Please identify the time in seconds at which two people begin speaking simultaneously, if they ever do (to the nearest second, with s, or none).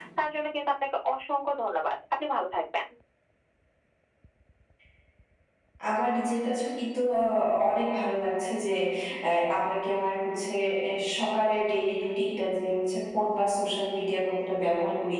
none